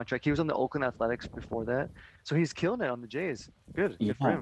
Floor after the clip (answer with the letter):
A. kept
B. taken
B